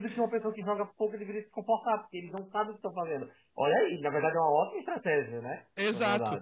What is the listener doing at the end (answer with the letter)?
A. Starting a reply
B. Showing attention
A